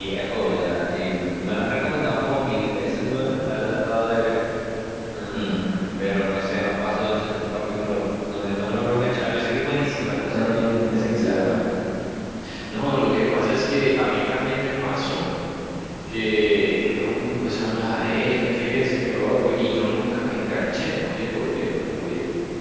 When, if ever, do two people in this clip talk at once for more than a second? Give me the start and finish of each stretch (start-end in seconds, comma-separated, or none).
10.2-11.4